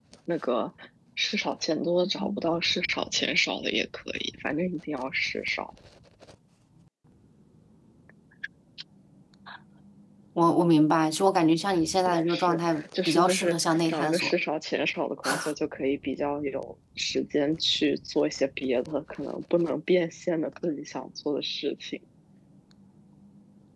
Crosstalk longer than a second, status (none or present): present